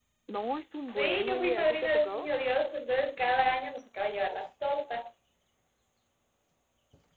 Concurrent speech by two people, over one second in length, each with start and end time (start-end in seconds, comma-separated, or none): 0.9-2.3